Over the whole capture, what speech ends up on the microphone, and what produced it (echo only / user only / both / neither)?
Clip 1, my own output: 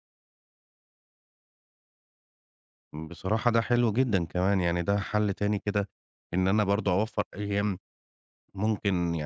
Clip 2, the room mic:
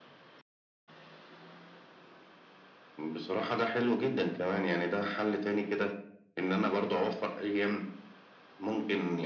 echo only